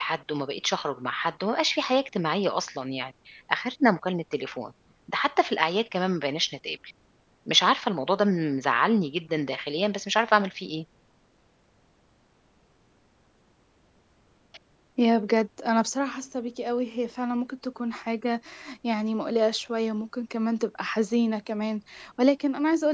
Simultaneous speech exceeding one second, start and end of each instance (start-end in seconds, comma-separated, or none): none